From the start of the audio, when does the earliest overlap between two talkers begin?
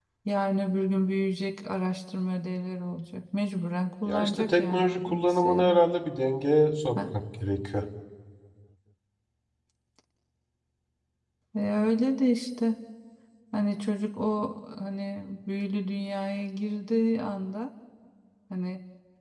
4.0 s

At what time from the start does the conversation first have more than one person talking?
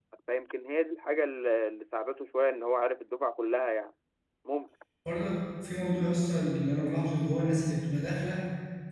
none

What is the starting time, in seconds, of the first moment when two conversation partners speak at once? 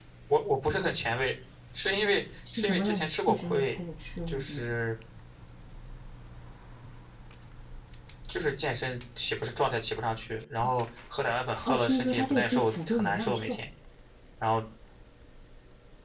2.5 s

